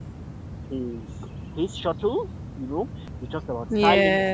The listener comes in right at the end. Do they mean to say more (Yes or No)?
No